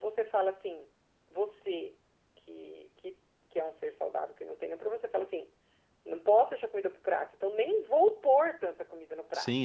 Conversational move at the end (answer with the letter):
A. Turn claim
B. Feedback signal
A